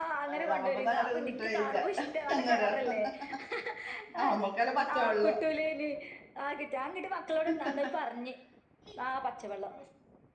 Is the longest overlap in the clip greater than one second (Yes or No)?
Yes